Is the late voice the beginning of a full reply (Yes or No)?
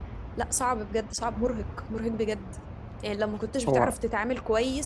No